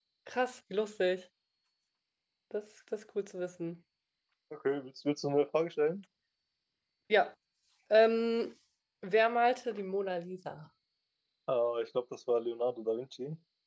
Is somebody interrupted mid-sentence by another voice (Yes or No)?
No